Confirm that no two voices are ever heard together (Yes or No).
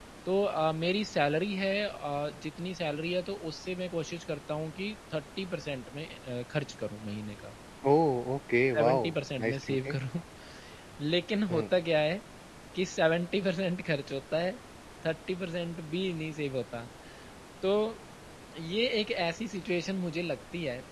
No